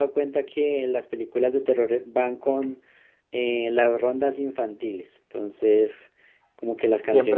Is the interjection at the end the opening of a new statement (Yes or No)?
Yes